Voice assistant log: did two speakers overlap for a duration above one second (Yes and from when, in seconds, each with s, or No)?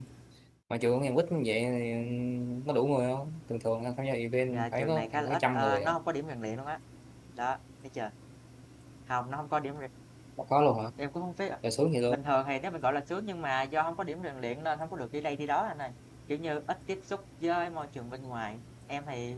Yes, from 4.5 s